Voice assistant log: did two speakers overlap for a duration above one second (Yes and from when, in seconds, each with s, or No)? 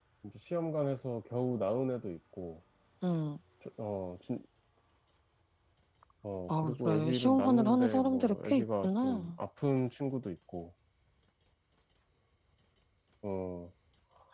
Yes, from 6.5 s